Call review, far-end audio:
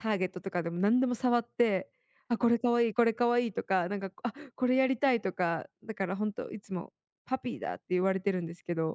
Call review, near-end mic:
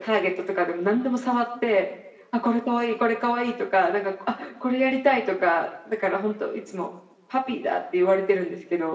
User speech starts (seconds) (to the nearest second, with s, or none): none